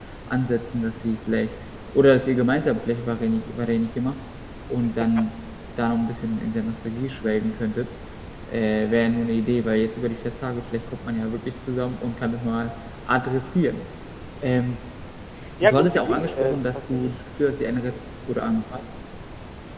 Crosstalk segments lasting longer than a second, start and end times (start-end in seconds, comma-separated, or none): 15.6-17.2